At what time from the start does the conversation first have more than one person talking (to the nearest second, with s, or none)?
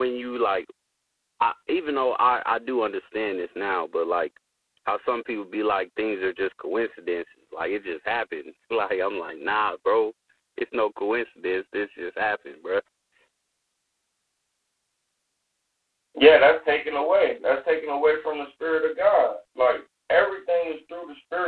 none